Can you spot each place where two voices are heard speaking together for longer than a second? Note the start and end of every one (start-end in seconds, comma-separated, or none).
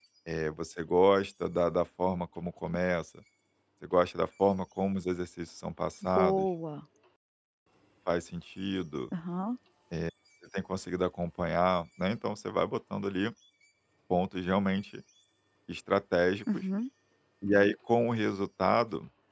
none